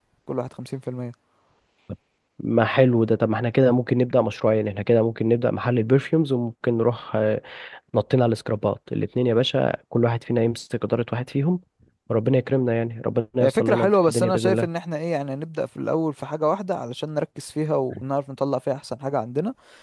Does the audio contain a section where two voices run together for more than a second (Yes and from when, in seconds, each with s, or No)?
Yes, from 13.4 s